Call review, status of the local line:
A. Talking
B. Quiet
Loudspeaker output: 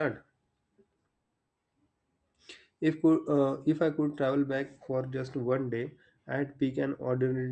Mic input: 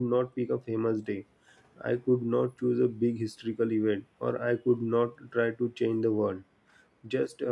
A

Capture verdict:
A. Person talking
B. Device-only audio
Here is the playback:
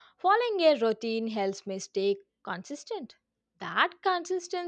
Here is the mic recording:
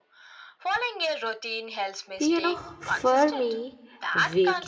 A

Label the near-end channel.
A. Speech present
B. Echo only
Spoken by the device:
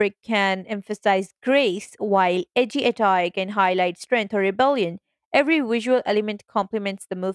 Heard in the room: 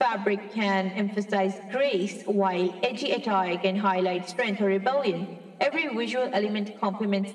B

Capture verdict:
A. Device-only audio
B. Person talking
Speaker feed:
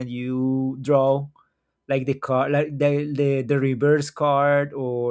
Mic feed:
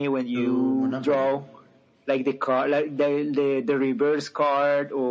B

